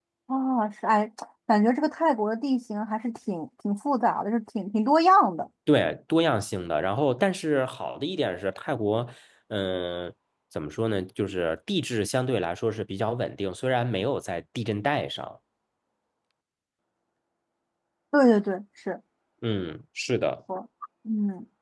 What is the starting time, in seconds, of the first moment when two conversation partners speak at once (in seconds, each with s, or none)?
none